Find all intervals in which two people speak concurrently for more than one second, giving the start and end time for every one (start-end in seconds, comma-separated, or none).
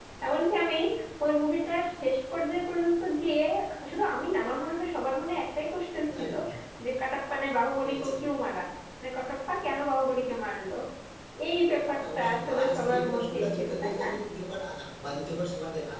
11.9-14.1